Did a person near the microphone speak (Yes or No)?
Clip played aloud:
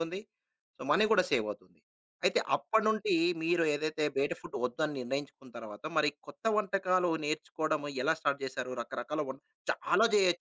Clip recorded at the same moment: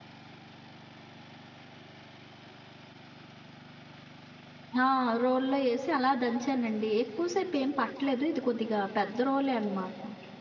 Yes